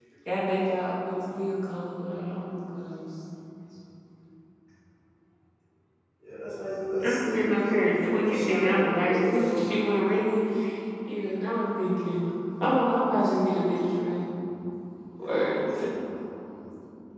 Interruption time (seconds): 7 s

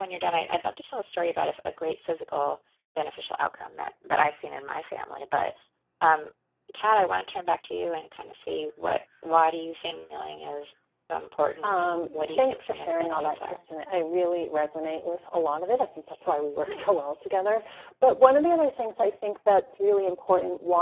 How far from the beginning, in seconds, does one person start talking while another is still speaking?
12 s

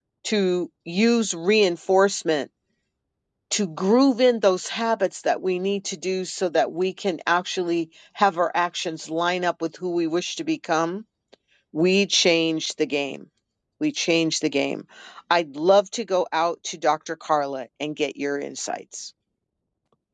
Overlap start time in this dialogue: none

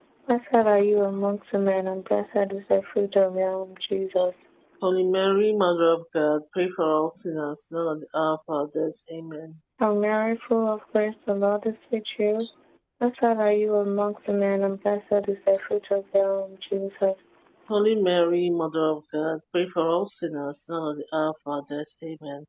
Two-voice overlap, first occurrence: none

